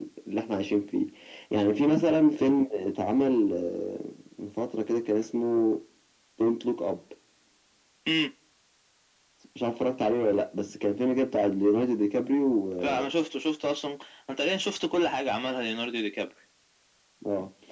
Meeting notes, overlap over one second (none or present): none